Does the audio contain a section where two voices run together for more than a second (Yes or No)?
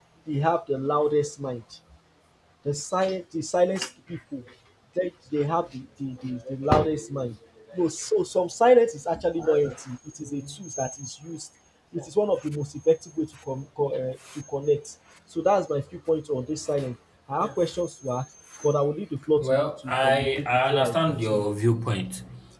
Yes